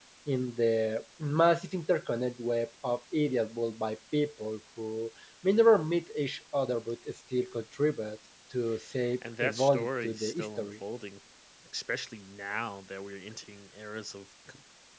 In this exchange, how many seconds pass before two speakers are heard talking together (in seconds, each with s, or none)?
9.2 s